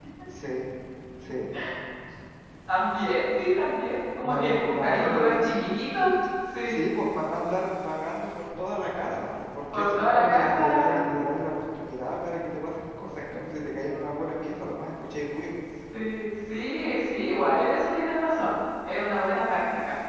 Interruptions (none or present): present